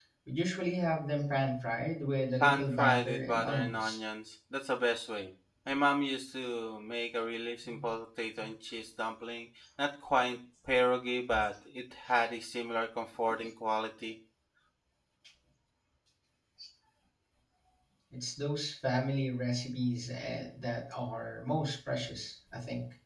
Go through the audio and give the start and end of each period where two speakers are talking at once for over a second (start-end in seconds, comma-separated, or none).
2.4-4.0